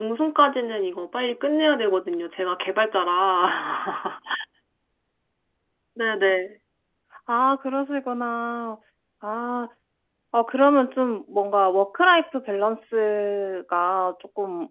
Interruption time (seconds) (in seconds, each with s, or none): none